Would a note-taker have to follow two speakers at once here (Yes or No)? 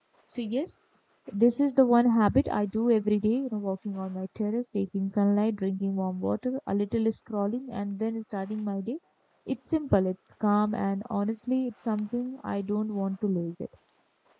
No